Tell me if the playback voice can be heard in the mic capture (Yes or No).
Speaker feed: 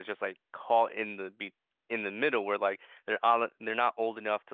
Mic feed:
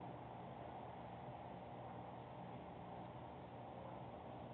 No